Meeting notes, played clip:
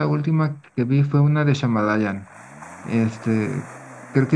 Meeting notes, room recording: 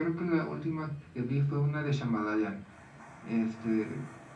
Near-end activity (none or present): none